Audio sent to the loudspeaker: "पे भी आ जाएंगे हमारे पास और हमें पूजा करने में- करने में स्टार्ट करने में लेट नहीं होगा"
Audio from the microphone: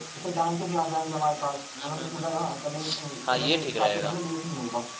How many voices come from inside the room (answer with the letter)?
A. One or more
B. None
A